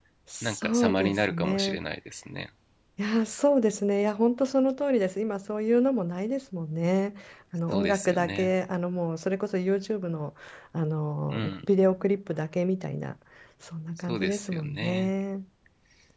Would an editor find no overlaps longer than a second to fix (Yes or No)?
No